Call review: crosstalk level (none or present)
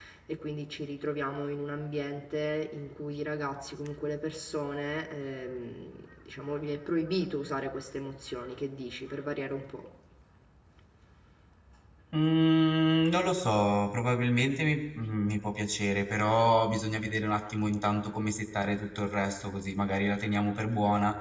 none